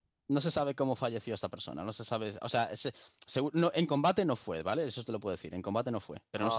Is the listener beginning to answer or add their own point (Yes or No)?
Yes